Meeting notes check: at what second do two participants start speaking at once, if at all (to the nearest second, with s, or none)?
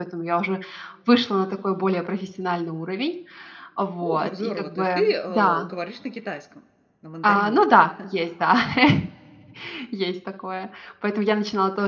4 s